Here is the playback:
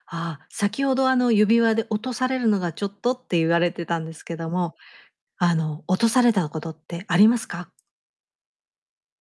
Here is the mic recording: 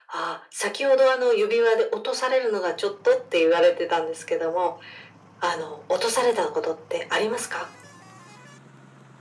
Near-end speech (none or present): none